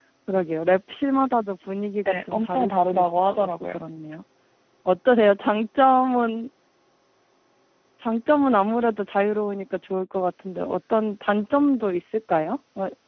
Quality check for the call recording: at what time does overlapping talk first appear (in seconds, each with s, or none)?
2.0 s